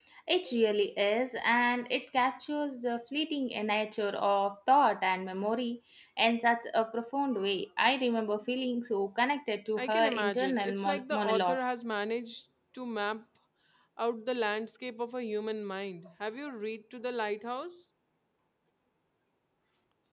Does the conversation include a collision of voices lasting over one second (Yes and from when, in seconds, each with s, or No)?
Yes, from 9.8 s